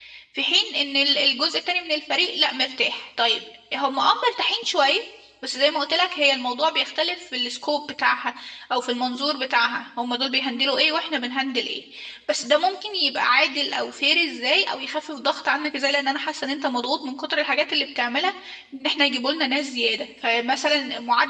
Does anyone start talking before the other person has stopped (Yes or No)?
No